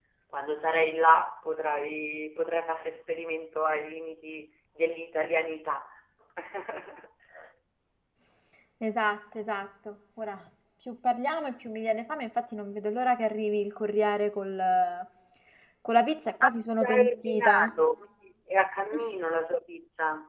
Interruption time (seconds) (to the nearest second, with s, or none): 16 s